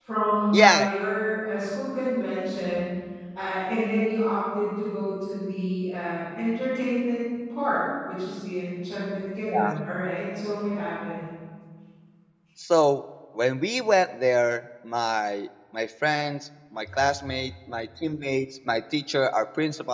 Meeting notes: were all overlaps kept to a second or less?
Yes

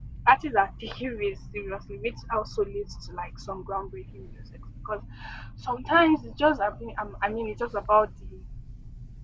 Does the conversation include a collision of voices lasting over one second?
No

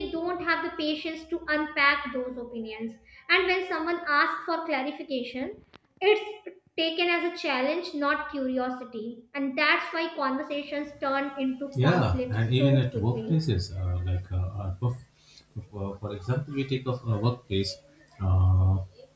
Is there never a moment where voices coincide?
No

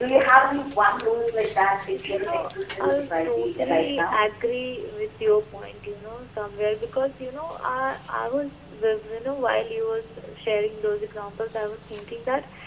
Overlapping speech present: Yes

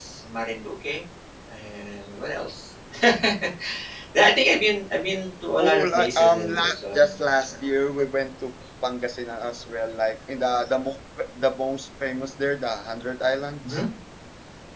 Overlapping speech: Yes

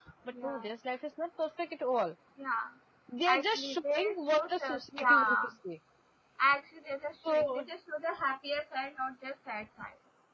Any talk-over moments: Yes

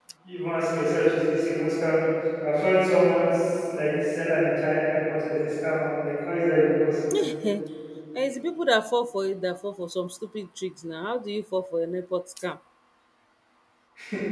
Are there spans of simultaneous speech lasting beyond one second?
No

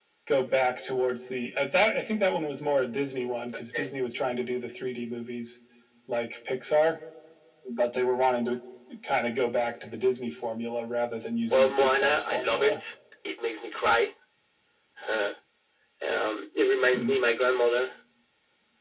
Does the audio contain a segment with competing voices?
Yes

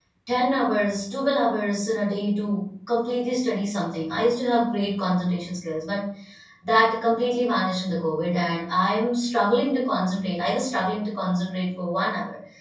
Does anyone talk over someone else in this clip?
No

